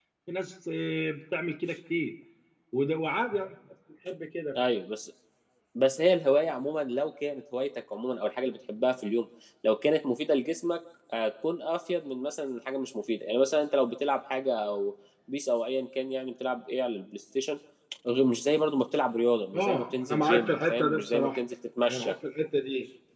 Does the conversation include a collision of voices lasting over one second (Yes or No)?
Yes